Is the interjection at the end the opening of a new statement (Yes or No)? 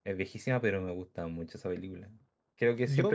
Yes